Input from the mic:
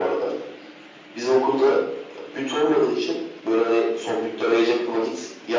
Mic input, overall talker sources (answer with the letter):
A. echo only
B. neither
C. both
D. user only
A